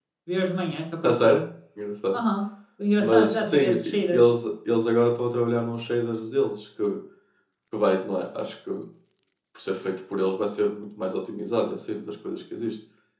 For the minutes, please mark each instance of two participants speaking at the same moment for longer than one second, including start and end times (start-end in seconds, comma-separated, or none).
3.0-4.3